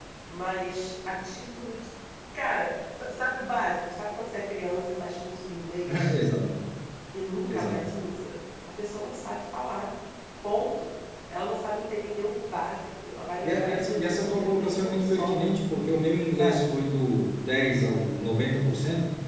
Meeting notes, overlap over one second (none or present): present